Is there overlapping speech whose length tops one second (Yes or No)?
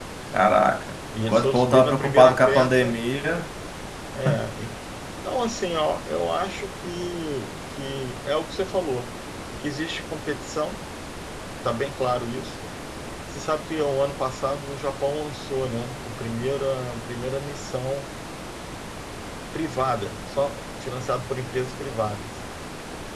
Yes